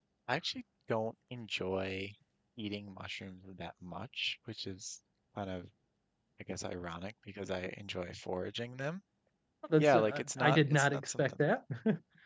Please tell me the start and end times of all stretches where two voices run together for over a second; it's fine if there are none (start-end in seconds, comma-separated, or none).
9.8-11.4